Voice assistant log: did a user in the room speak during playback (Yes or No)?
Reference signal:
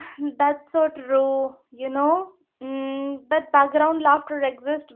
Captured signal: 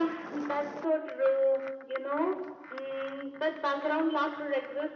No